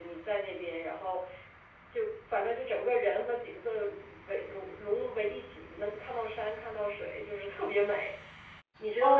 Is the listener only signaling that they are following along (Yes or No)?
No